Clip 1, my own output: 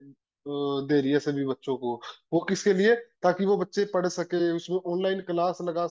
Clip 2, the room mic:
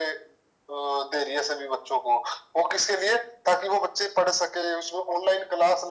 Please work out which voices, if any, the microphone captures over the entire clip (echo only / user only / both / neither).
echo only